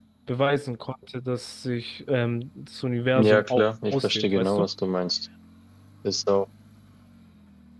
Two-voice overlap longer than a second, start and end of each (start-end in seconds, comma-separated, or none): 3.2-4.7